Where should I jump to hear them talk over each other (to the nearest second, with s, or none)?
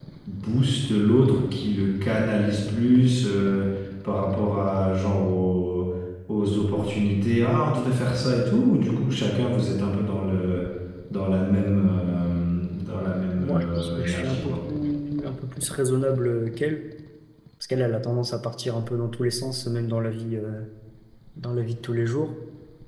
13 s